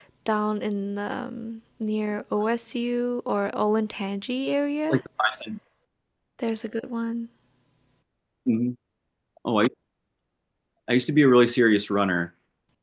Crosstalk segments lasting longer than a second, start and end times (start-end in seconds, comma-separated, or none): none